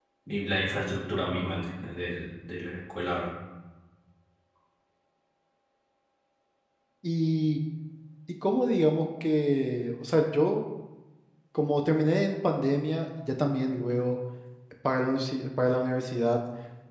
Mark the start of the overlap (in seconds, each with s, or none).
none